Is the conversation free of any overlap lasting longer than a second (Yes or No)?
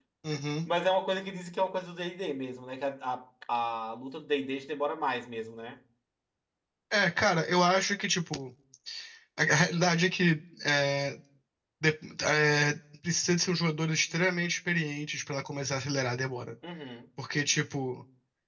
Yes